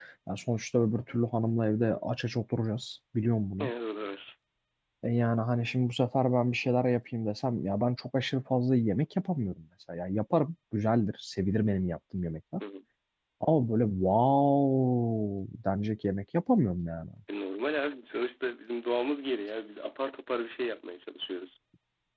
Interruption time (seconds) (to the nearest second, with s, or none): none